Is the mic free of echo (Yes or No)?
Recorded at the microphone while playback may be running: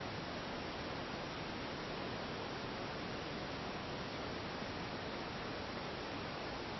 Yes